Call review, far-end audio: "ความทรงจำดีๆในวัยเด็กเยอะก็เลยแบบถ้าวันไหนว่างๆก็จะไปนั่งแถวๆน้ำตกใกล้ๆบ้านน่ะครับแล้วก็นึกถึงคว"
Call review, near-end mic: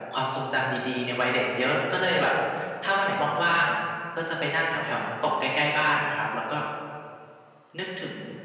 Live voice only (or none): none